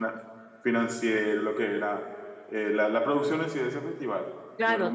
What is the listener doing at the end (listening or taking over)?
taking over